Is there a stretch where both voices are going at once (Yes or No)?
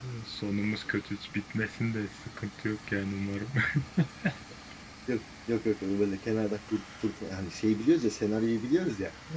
No